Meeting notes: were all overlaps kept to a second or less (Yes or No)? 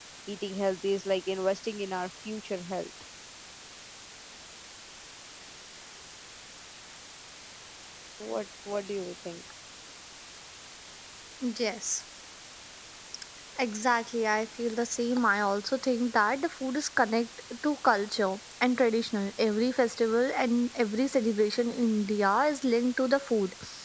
Yes